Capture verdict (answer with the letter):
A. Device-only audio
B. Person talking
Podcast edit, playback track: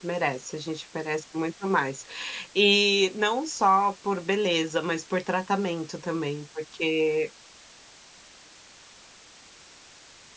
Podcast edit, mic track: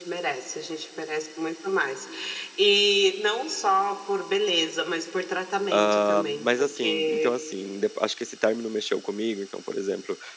B